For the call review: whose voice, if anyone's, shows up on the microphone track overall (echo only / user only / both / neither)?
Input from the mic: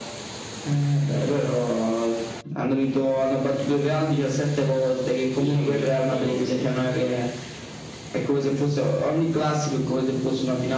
both